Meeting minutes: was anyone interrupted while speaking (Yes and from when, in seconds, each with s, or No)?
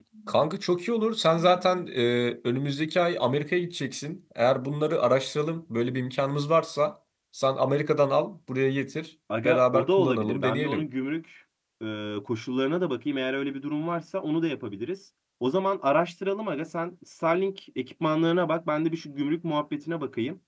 Yes, from 9.3 s